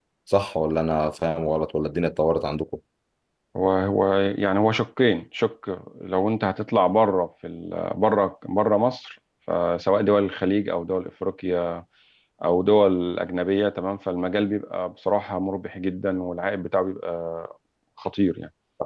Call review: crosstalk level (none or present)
none